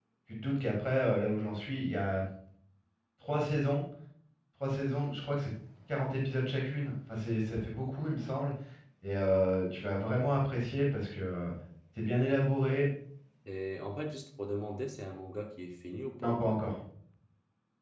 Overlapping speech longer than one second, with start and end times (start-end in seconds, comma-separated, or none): none